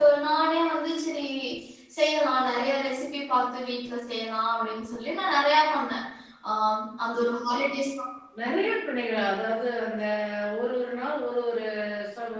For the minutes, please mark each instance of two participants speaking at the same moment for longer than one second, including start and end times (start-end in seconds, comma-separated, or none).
none